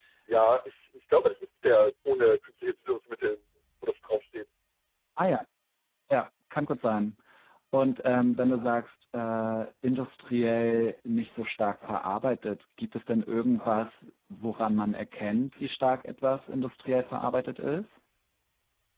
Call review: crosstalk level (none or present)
none